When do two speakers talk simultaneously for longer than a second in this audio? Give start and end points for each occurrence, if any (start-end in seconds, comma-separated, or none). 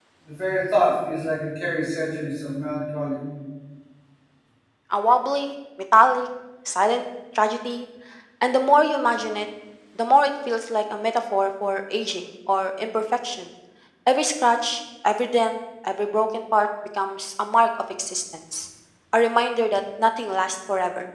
none